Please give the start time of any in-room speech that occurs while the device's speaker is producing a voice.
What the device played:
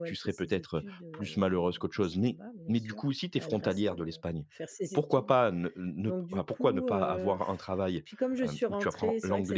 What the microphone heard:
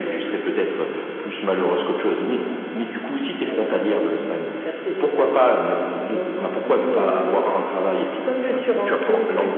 none

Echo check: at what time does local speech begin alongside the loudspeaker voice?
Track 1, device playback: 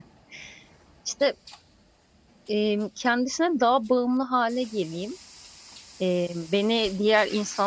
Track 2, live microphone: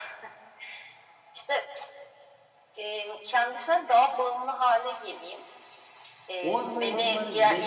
6 s

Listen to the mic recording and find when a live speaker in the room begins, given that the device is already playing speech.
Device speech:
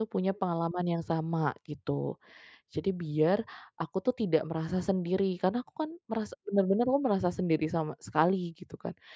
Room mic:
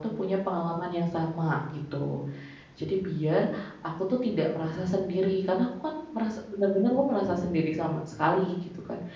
none

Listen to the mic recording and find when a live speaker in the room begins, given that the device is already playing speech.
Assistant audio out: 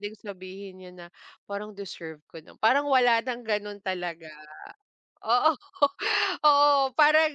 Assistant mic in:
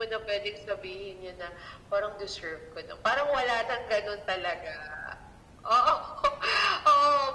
none

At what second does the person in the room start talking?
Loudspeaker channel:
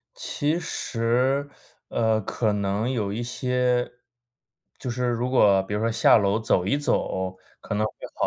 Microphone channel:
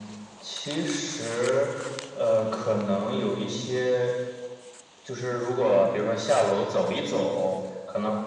3 s

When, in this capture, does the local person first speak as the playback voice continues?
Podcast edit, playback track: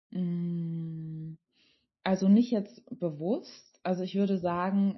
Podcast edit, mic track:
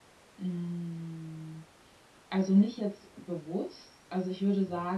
none

